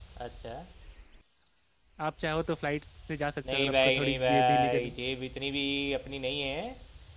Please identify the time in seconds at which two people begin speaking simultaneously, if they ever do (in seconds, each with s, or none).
3.5 s